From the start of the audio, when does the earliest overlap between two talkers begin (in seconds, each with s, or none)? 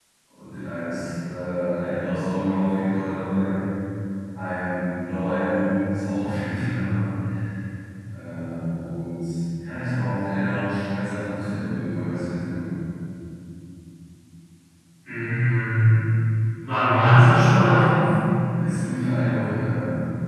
none